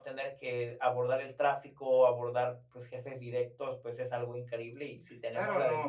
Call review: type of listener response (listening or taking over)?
taking over